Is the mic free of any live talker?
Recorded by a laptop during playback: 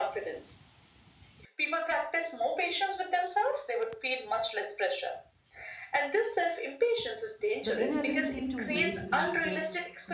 No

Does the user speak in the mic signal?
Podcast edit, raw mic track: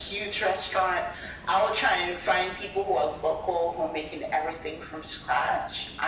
No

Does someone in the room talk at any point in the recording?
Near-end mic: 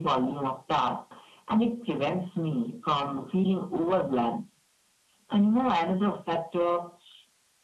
No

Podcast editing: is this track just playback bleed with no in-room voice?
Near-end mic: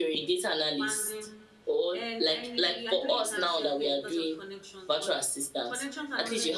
No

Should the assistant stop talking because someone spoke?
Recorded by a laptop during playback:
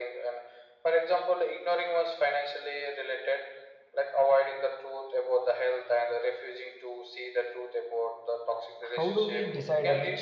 Yes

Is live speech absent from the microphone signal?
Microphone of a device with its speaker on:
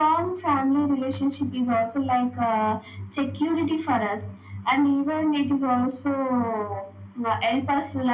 Yes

